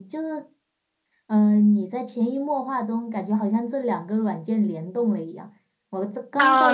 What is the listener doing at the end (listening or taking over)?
taking over